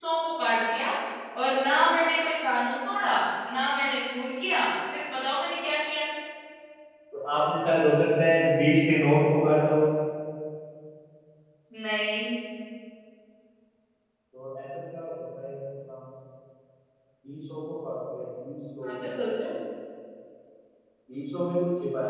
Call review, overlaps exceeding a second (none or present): none